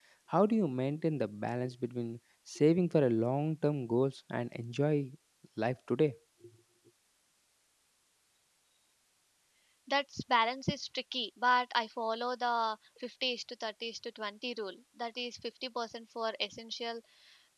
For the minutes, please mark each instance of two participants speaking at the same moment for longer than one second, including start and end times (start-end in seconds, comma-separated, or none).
none